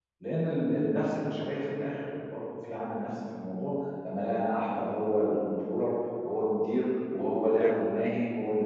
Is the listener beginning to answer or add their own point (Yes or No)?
No